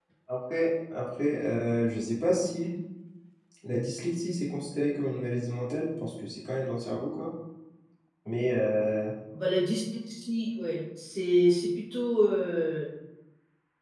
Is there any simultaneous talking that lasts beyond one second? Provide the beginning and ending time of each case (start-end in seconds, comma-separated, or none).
none